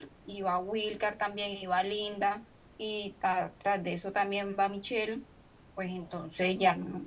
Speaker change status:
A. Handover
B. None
B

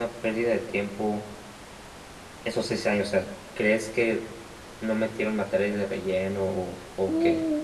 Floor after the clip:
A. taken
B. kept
A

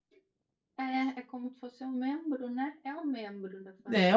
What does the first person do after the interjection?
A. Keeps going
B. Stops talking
B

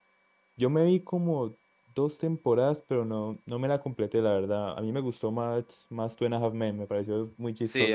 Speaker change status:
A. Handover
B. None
A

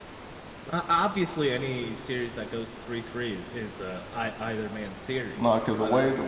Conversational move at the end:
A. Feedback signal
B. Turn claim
B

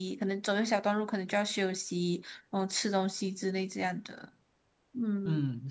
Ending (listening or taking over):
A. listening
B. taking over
B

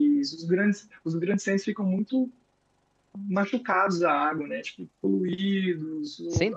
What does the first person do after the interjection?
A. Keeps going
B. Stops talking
A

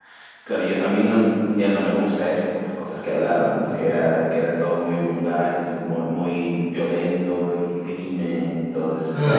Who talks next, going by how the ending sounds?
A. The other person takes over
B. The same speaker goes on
A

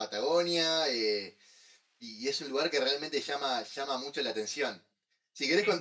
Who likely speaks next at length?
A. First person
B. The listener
A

